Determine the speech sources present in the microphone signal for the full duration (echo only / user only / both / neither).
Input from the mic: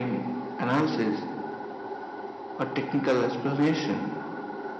echo only